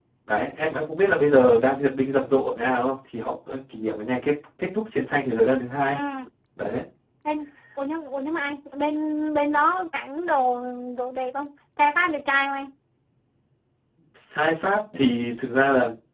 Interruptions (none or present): none